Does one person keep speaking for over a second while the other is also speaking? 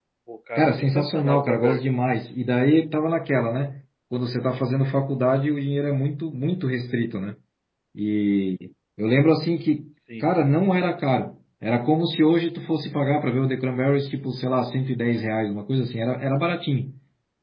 Yes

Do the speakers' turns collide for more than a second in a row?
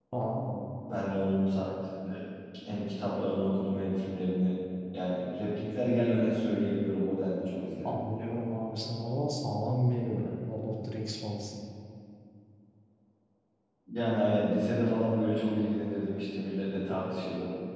No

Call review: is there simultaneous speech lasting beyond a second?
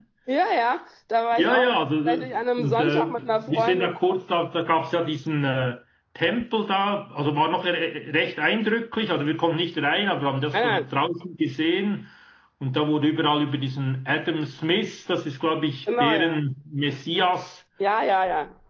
Yes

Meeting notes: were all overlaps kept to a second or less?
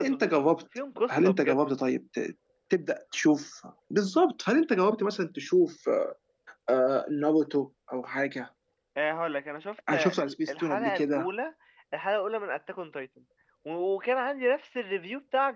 No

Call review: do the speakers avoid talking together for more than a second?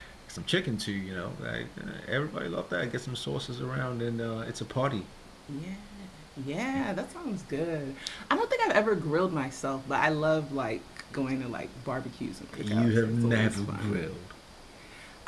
No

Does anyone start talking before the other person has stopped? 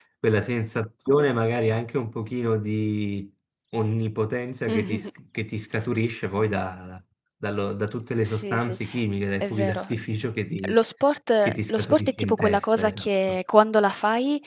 Yes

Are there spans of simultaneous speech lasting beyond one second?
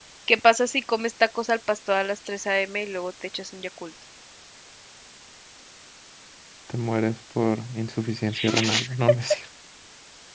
No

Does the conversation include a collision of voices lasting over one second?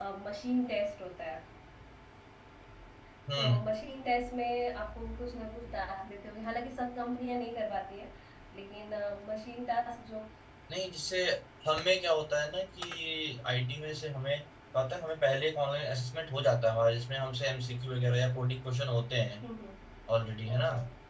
No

